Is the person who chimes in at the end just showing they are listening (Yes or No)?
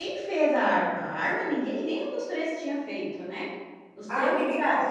No